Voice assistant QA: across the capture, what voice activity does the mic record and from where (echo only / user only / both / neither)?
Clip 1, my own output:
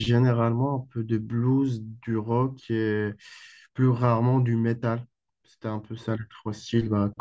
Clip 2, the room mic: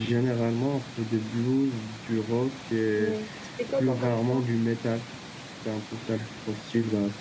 both